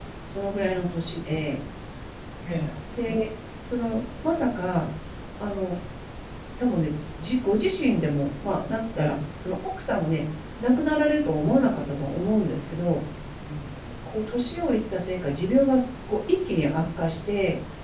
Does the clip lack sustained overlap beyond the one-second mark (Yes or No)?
Yes